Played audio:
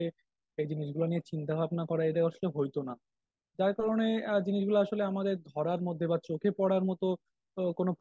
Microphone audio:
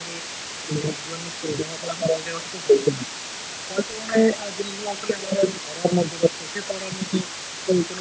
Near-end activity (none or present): none